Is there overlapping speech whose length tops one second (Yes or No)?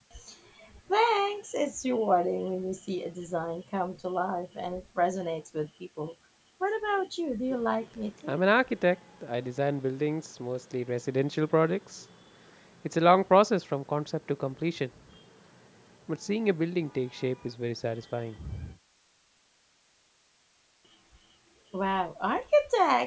No